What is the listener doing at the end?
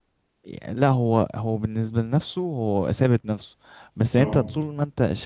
listening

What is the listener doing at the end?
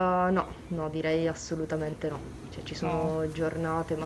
listening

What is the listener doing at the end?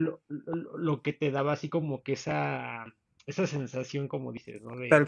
listening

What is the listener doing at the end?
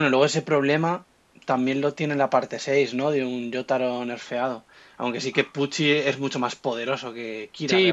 taking over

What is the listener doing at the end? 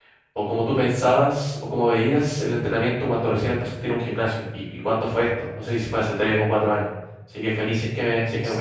taking over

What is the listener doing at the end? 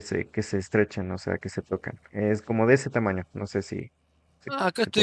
taking over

